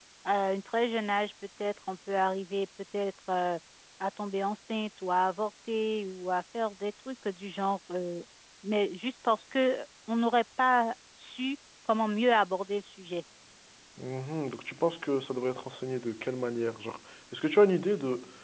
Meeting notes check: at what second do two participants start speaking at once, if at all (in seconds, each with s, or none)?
none